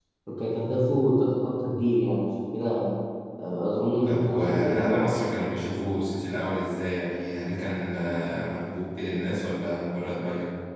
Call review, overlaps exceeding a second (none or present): present